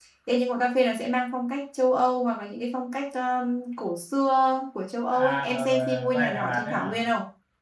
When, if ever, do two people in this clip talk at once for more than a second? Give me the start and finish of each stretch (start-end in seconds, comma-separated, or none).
5.1-7.0